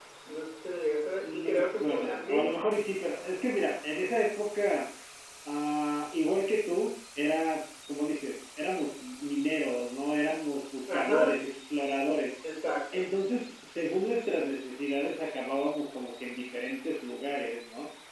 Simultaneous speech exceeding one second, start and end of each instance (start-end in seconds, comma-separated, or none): 1.2-2.6